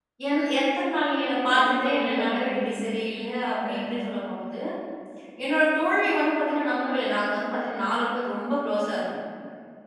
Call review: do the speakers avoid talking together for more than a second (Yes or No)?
No